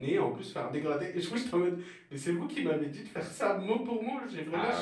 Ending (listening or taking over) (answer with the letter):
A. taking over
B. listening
B